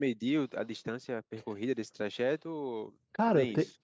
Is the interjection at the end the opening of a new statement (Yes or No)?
Yes